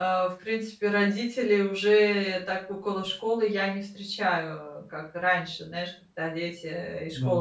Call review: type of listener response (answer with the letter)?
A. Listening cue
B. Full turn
A